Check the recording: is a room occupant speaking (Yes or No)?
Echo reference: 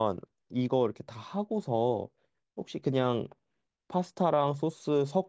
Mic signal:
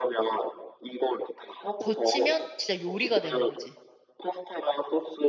Yes